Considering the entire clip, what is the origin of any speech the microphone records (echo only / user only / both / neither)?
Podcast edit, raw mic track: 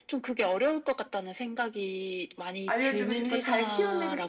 both